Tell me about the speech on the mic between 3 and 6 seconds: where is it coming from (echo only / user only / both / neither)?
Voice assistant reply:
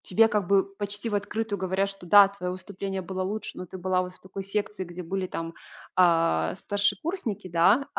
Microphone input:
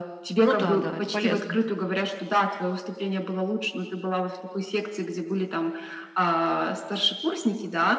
echo only